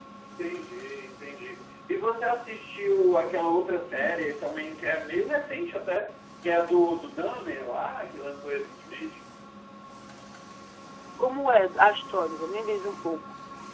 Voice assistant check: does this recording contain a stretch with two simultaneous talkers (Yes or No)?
No